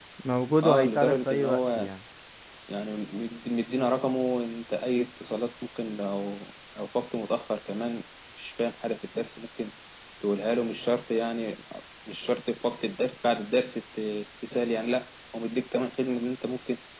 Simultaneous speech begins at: 0.6 s

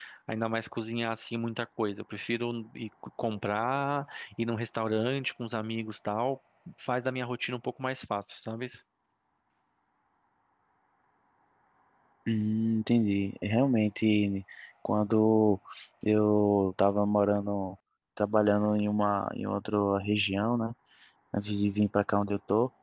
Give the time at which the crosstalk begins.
none

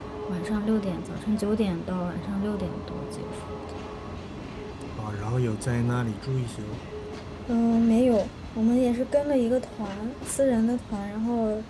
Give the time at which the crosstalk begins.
none

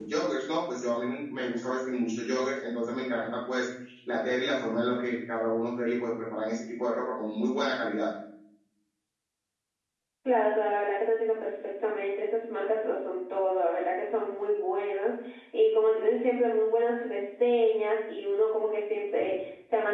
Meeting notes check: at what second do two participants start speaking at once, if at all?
none

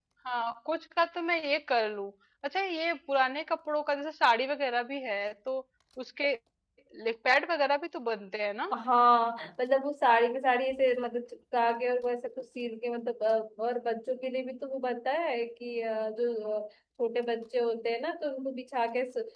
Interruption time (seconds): none

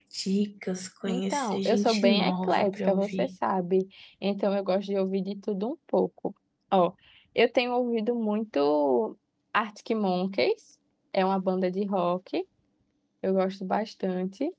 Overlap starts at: 1.1 s

